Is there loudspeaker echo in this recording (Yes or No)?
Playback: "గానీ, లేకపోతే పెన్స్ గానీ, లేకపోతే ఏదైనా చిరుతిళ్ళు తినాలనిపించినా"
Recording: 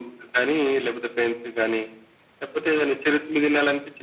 Yes